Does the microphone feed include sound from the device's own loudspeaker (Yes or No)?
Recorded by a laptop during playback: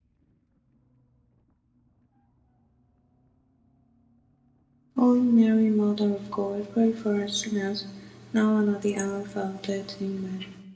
No